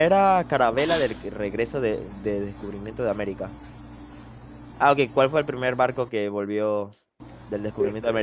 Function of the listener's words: listening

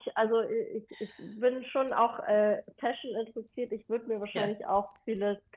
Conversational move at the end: listening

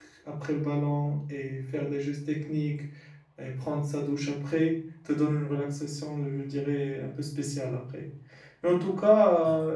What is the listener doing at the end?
listening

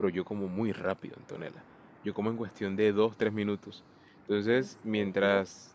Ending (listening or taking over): listening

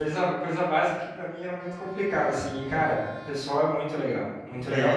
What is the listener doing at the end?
taking over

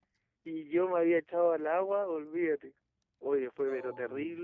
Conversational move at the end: listening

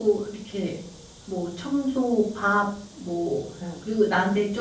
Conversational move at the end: listening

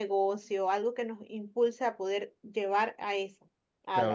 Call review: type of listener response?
taking over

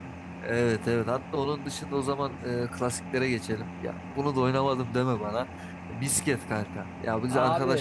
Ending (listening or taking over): listening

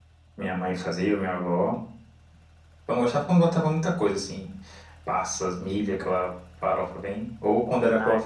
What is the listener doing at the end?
listening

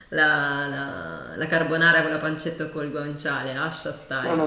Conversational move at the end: taking over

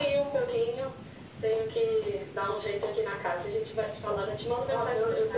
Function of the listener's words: taking over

